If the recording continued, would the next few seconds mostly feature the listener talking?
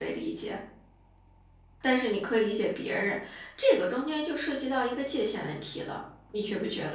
Yes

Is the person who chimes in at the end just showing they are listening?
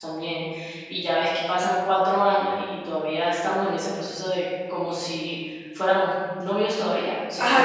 No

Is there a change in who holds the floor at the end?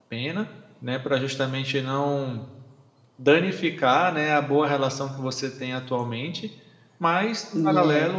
No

